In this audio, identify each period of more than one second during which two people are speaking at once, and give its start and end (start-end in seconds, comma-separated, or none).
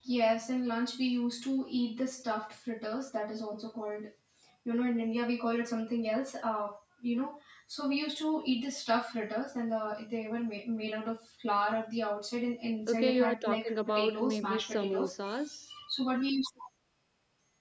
12.9-15.1